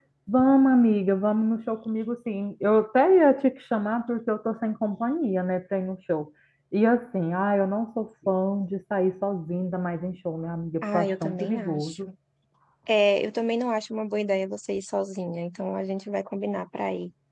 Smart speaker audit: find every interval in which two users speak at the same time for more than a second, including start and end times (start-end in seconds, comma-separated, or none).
10.8-12.1